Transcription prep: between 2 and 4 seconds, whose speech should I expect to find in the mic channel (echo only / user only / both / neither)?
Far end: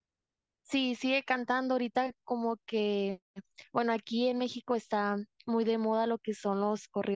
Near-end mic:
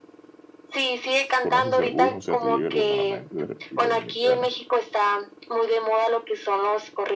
both